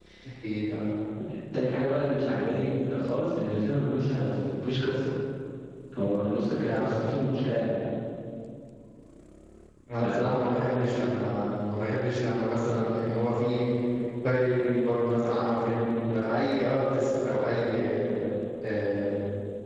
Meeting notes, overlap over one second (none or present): none